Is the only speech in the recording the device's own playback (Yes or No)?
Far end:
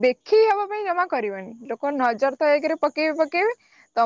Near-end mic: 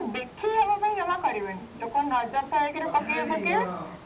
No